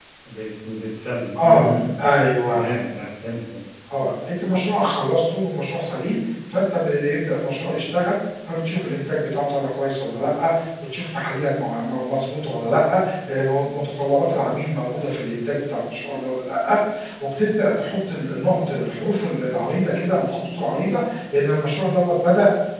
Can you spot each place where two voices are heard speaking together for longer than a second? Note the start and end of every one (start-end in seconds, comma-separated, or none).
none